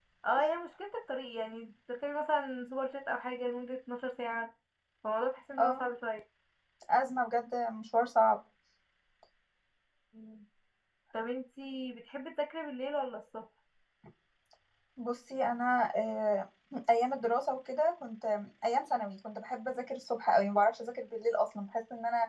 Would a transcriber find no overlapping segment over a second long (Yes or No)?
Yes